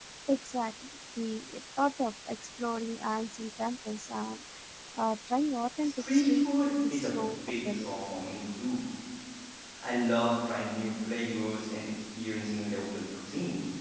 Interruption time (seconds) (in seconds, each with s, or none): 5.8 s